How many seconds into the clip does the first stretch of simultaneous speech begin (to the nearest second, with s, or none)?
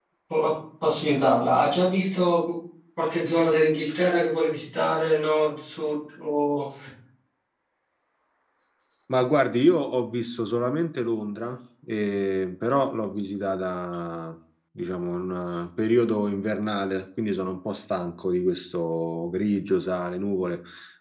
none